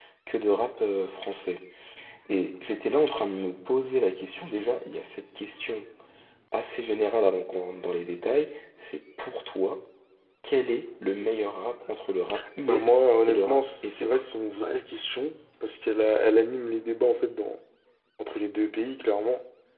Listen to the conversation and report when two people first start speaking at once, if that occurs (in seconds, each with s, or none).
12.7 s